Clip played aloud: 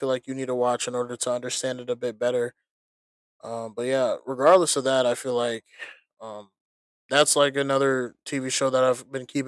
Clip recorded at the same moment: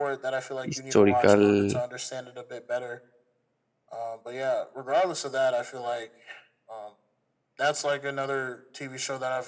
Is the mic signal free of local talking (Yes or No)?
No